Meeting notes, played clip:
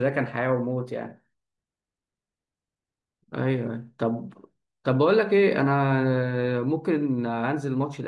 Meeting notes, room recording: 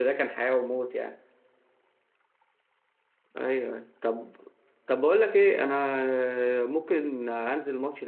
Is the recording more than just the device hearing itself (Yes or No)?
No